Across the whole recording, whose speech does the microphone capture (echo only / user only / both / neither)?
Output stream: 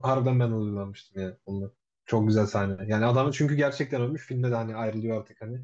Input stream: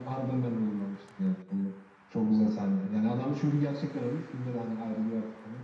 echo only